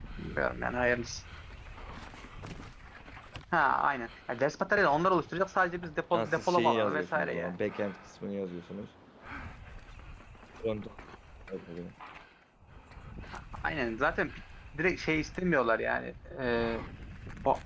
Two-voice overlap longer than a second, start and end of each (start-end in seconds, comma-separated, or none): 6.1-7.5